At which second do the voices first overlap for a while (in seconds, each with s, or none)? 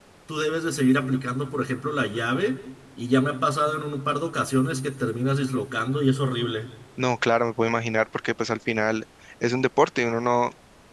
none